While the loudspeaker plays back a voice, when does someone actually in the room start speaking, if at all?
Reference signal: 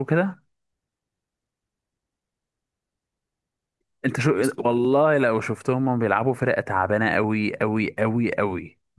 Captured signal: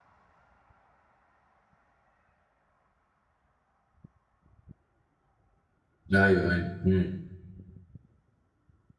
6 s

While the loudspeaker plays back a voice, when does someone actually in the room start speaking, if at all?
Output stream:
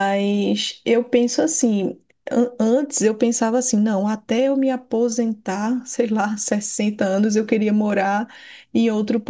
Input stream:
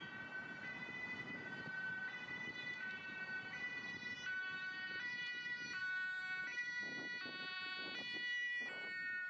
none

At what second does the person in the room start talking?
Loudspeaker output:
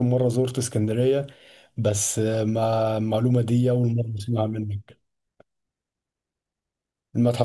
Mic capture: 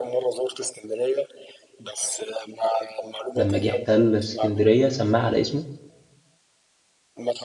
3 s

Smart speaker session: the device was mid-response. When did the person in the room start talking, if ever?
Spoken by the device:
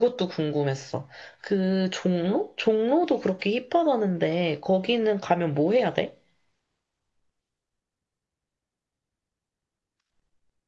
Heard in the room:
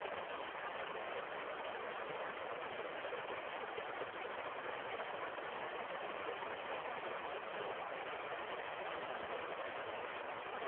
none

